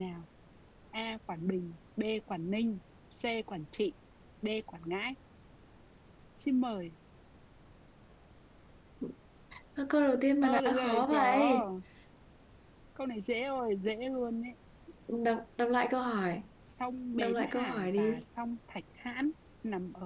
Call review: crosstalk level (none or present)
present